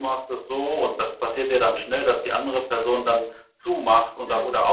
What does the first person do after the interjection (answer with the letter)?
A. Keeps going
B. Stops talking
A